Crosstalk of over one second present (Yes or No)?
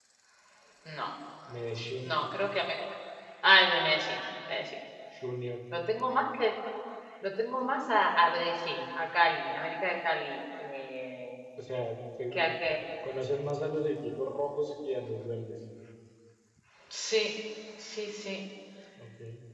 No